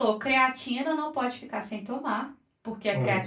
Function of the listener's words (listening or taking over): listening